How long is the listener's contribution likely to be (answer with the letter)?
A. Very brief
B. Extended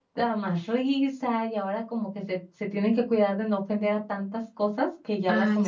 B